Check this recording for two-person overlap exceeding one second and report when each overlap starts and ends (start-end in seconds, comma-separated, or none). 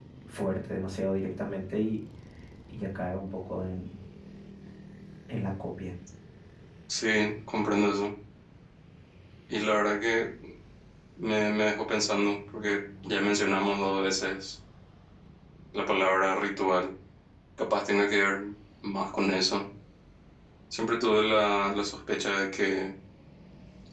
none